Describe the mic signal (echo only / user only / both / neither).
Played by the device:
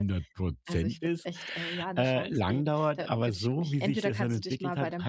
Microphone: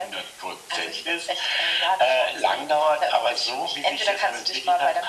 echo only